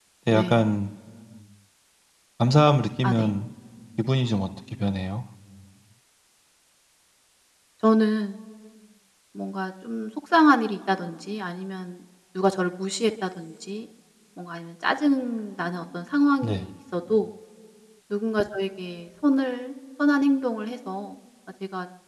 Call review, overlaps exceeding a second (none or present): none